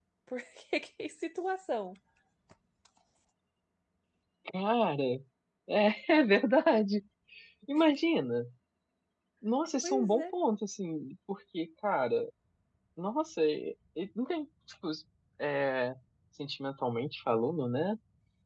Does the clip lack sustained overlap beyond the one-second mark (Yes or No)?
Yes